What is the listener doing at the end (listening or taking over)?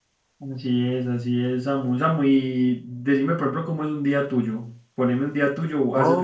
taking over